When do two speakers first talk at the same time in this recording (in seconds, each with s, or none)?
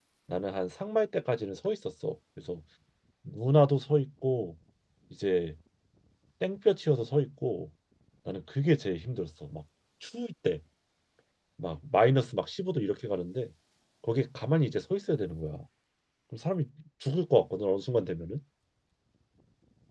none